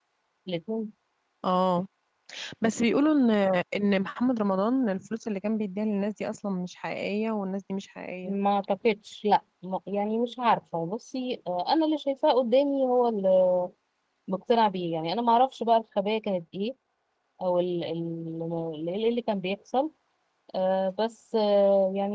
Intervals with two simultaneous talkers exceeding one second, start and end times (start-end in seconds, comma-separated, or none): none